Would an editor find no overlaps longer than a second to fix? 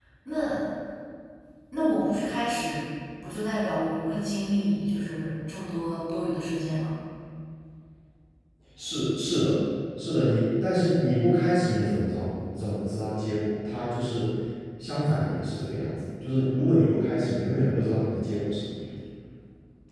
Yes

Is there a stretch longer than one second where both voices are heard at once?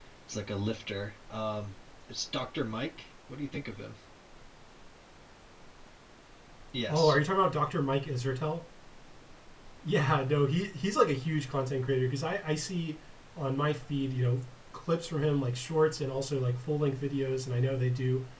No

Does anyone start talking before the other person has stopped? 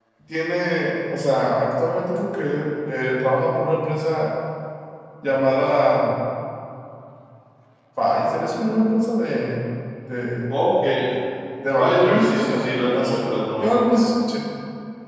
Yes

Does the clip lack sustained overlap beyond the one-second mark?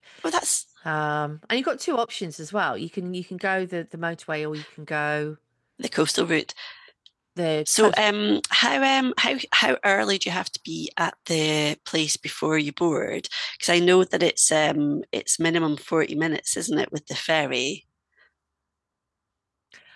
Yes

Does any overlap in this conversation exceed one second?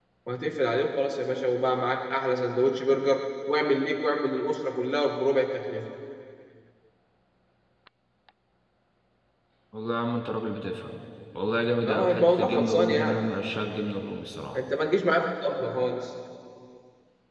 Yes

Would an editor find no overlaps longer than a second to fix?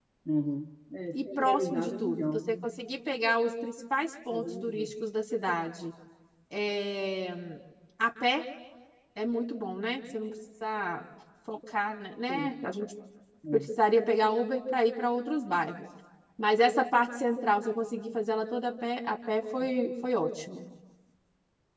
No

